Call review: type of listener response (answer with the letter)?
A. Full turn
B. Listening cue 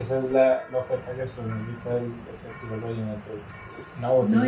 B